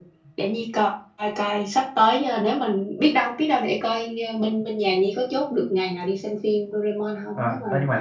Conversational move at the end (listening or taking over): taking over